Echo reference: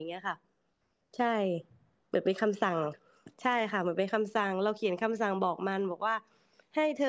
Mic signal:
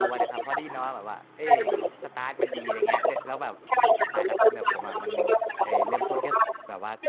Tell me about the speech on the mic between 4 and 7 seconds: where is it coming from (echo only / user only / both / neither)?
both